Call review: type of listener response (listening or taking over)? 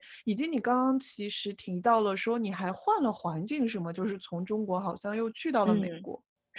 taking over